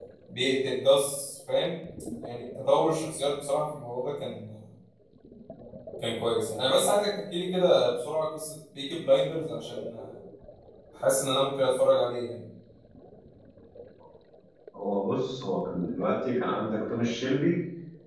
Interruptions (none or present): none